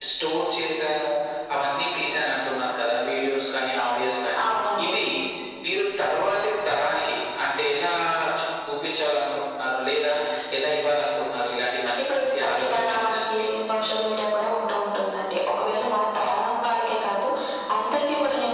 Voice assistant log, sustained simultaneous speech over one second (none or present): present